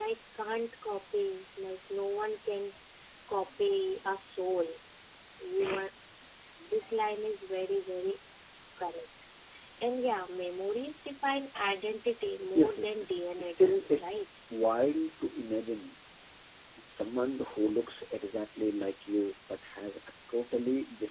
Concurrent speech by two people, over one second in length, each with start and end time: 12.5-14.2

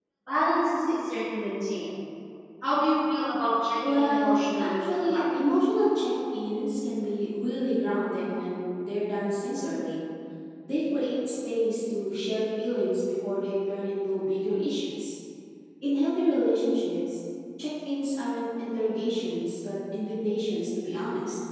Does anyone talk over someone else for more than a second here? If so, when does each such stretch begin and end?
3.8-5.2

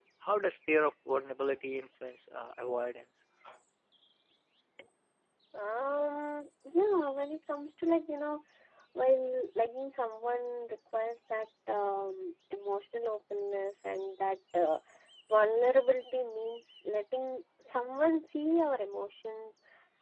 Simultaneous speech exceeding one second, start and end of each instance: none

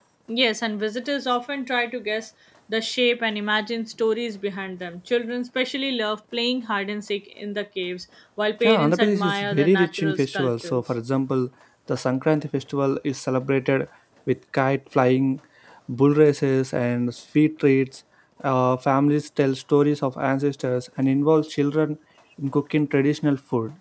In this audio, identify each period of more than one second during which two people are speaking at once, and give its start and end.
8.6-10.8

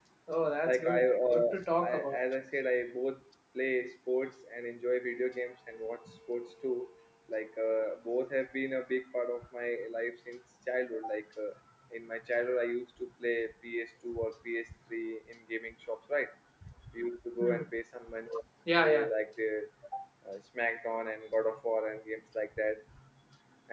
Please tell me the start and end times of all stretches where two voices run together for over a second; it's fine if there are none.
0.7-2.2

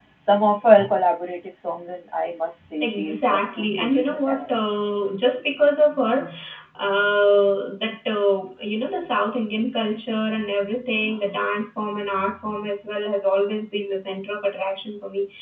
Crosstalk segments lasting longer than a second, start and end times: 2.8-4.5

